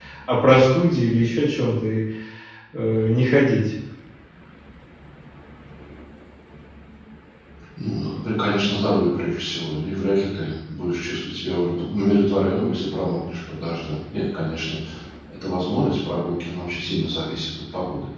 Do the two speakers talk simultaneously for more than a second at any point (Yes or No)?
No